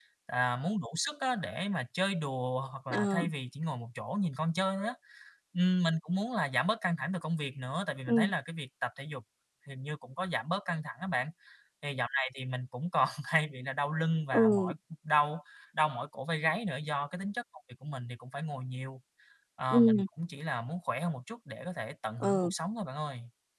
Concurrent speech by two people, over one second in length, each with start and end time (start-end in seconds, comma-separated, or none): none